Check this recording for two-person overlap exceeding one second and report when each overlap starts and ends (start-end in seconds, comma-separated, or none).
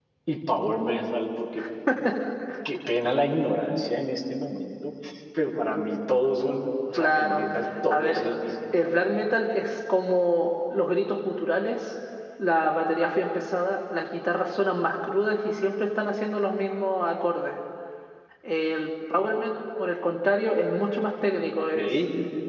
none